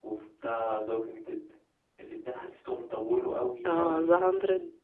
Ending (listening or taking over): taking over